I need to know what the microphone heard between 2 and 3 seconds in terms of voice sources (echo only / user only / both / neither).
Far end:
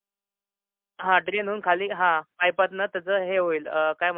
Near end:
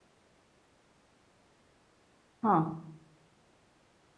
user only